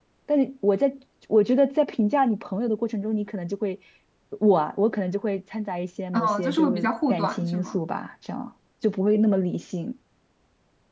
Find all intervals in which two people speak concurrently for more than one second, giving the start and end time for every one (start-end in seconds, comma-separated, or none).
6.1-7.8